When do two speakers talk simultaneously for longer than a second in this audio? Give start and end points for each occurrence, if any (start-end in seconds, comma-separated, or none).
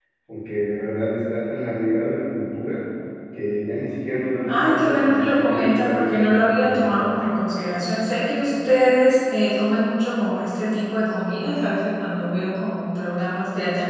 4.5-6.9